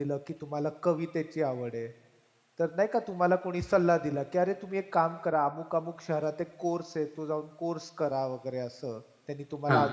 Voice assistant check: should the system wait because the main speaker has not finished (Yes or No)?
Yes